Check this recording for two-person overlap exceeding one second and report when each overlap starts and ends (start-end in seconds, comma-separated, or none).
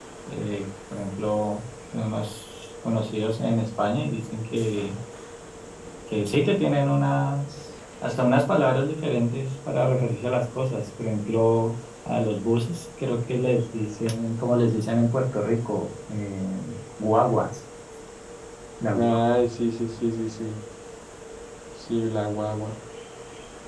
none